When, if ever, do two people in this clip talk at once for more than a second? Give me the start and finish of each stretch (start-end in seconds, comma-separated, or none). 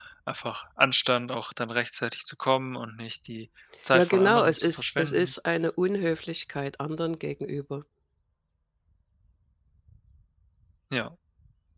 3.9-5.3